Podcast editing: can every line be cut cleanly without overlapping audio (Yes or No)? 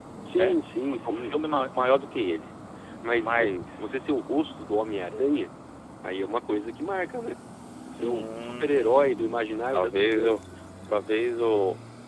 No